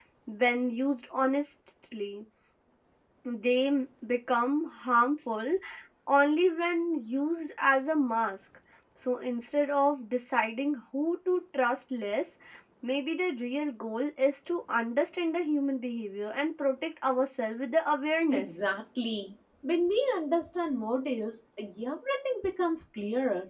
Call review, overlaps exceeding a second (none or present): none